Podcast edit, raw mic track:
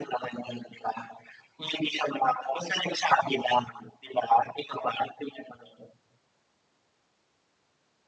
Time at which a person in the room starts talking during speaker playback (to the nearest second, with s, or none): none